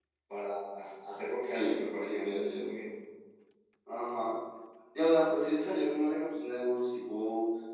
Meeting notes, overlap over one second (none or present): present